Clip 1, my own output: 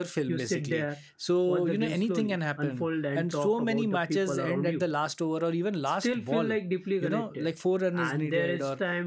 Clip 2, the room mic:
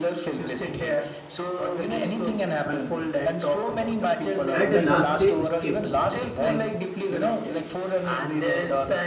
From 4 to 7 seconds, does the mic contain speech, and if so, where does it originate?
both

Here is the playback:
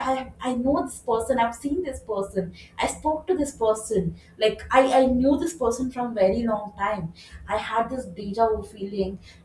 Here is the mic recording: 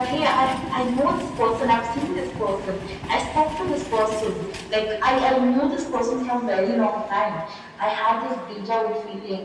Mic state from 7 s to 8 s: echo only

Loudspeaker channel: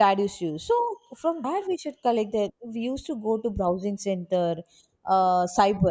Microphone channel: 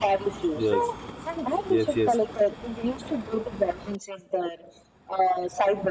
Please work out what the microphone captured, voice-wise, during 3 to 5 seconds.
echo only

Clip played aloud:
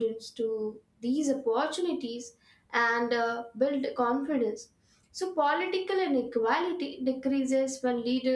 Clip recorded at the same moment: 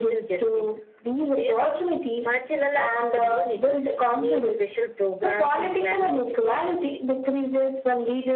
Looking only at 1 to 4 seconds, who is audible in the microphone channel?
both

